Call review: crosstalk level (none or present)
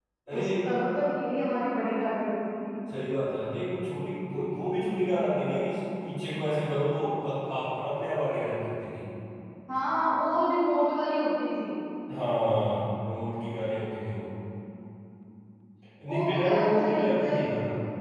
present